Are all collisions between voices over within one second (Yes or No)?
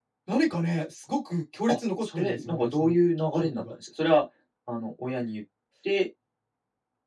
No